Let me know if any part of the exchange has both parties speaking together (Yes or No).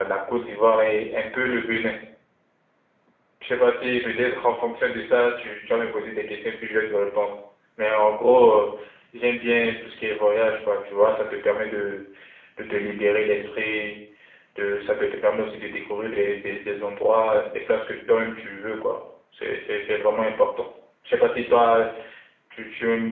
No